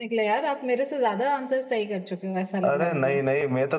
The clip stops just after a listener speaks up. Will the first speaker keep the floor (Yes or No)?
No